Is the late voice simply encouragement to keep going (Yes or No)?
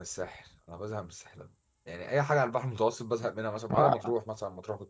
Yes